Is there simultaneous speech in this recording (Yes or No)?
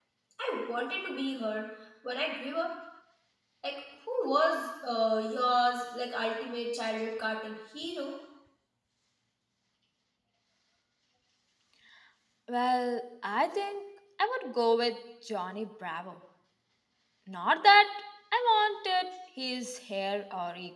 No